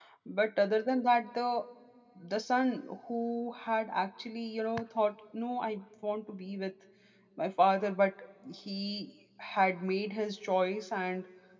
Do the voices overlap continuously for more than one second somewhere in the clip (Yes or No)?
No